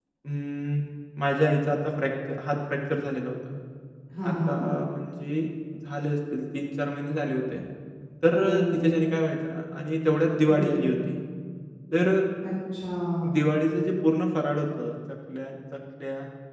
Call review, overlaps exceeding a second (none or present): none